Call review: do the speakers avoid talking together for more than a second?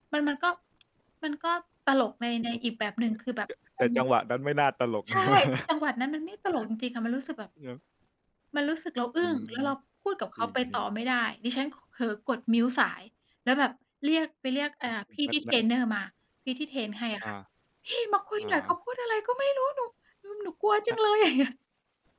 Yes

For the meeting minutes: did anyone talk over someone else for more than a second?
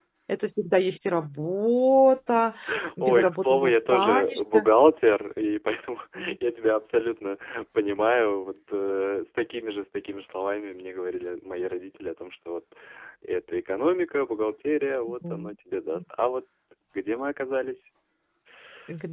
Yes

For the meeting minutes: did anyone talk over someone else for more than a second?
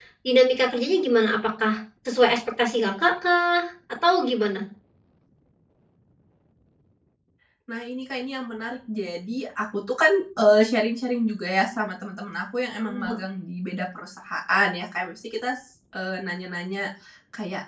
No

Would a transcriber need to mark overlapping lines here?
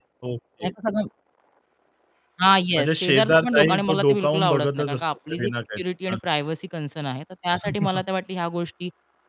Yes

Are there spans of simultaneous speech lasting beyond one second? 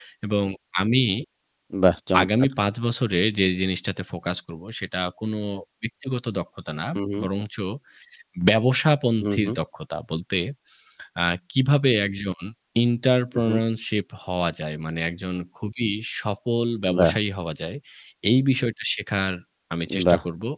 No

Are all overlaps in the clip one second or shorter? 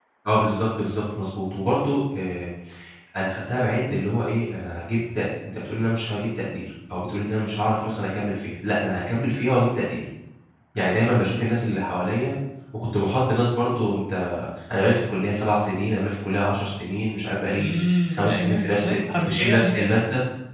No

